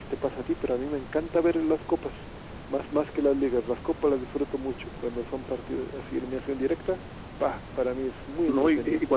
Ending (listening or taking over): taking over